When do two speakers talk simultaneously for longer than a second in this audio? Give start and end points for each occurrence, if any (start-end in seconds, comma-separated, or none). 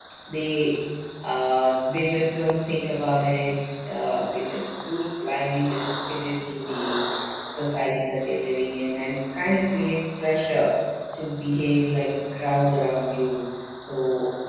none